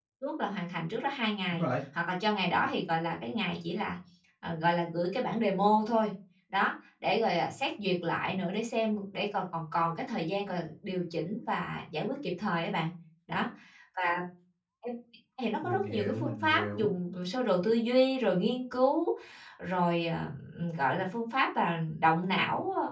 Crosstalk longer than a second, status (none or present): present